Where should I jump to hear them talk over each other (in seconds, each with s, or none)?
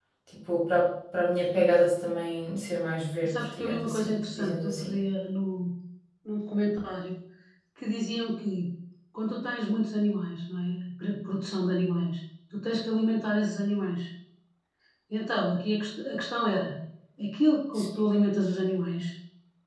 3.2 s